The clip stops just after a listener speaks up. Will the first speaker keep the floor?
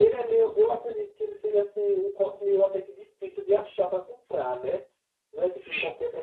Yes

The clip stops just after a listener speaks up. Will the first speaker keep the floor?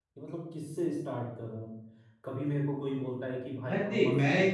No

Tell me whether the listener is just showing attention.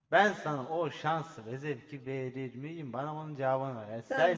No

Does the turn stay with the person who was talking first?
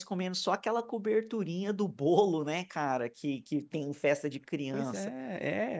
No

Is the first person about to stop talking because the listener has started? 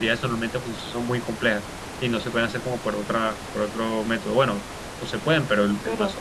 No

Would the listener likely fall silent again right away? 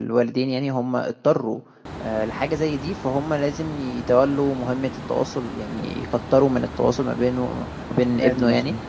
Yes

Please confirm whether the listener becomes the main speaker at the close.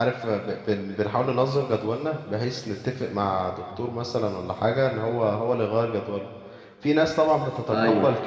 No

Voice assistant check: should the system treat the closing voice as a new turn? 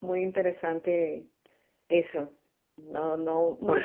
No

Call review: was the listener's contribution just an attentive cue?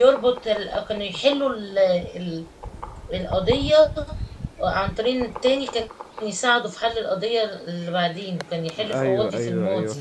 No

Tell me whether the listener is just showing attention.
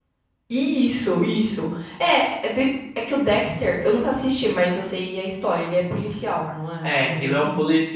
No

